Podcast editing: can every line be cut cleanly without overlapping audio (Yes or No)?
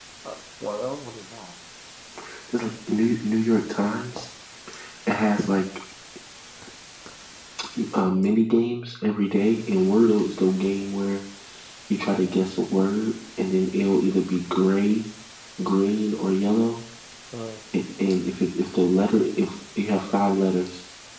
Yes